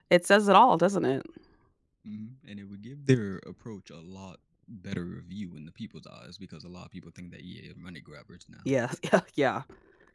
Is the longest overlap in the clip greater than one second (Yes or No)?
No